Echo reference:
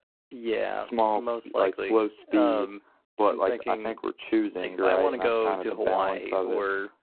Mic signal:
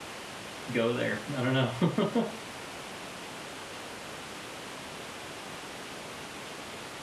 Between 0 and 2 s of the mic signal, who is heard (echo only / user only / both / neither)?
user only